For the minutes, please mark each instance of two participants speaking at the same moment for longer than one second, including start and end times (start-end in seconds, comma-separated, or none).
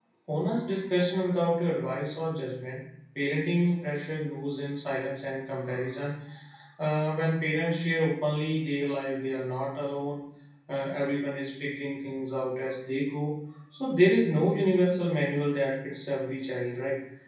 none